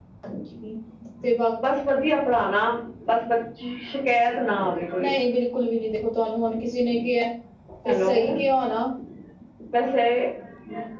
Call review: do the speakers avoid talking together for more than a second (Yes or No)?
Yes